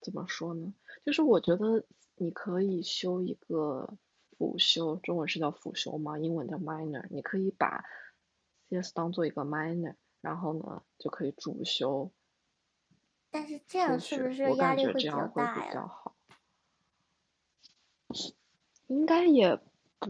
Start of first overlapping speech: 14 s

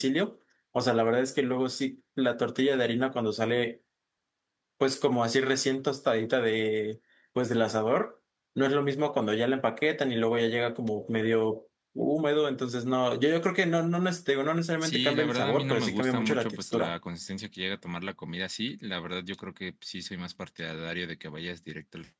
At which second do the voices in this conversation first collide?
15 s

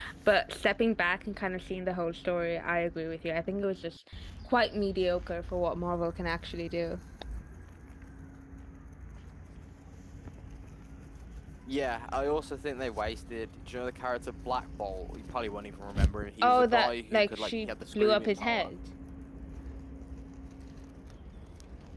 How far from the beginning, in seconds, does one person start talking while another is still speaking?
16 s

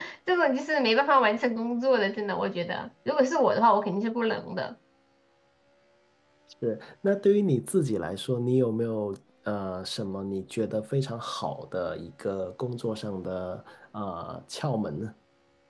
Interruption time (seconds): none

